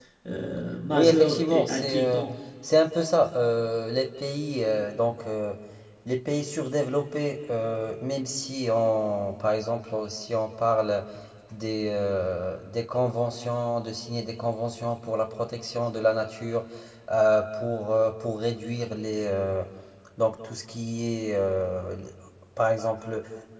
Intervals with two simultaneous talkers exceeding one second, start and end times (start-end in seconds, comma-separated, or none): 0.9-2.2